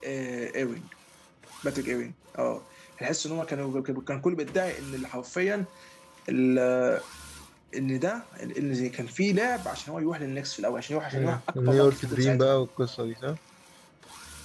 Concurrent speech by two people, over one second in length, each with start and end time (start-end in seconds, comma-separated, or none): 11.1-12.6